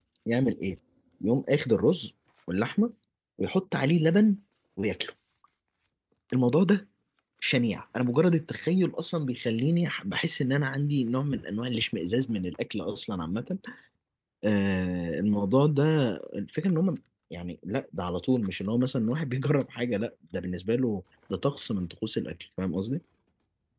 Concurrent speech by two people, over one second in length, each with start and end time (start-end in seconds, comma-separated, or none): none